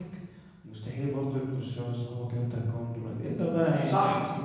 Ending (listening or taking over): taking over